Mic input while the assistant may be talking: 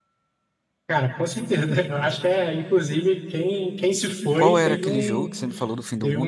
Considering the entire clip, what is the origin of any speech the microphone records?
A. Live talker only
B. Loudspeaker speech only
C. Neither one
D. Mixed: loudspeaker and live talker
D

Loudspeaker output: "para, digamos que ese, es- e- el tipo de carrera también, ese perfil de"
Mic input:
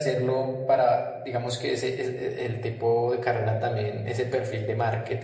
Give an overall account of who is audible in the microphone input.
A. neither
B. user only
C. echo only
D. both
C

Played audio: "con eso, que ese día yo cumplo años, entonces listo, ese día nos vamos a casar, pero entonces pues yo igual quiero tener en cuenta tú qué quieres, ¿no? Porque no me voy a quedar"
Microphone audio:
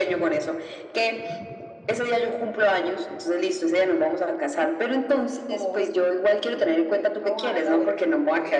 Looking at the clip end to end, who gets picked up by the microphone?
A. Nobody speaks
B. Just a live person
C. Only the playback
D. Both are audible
D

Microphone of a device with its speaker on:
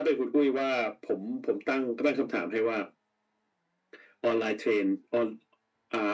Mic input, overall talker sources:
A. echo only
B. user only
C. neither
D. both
A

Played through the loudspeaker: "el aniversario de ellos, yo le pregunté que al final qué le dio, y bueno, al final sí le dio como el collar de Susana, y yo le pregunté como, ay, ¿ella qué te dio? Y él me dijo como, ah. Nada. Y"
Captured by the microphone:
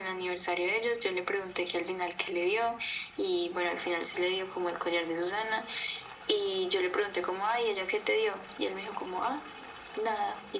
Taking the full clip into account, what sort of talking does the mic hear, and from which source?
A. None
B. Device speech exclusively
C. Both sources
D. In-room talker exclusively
B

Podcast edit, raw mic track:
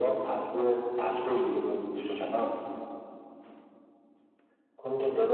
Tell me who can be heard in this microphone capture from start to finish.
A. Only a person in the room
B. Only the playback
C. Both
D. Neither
B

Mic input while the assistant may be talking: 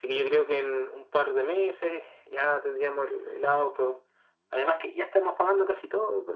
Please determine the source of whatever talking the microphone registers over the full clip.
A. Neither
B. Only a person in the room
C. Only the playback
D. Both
C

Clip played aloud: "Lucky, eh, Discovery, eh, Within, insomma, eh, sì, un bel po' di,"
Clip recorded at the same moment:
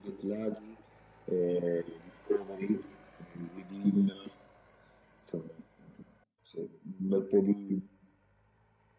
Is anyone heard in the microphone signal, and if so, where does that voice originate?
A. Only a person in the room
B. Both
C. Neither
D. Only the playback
D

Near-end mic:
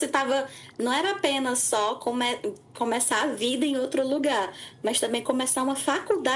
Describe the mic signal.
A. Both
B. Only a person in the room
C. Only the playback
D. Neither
C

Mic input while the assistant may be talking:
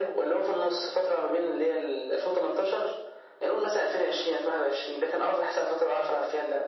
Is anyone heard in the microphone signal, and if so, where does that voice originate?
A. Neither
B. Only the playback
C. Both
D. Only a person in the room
B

